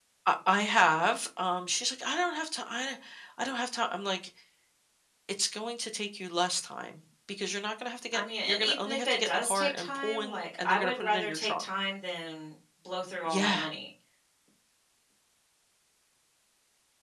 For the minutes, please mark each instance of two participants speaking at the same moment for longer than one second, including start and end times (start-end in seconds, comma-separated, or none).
8.1-11.6